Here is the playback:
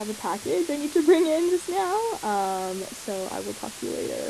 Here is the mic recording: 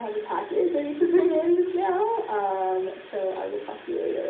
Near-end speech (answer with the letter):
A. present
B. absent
B